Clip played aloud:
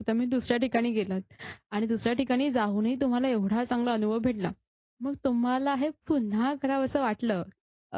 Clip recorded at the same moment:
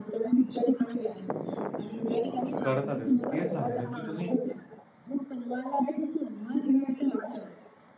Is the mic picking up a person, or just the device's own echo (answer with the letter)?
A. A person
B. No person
A